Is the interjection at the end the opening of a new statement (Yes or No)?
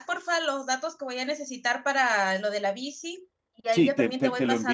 Yes